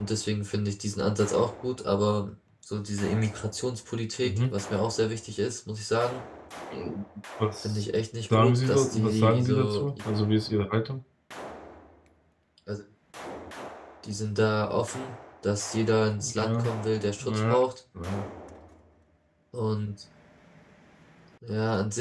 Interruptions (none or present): present